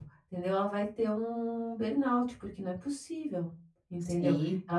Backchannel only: Yes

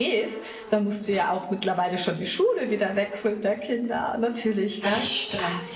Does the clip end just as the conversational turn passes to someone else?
No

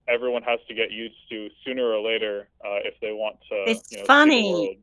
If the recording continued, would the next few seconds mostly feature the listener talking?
Yes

